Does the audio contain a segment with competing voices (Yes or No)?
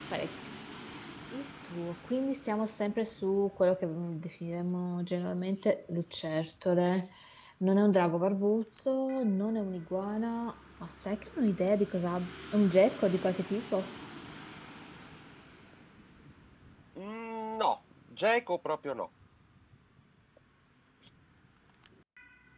No